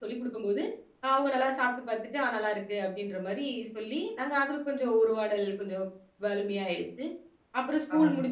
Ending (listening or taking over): listening